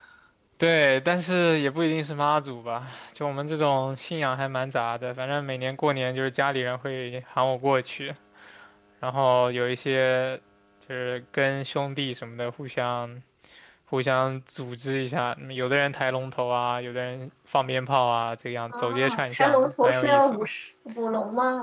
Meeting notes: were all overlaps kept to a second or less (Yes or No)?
No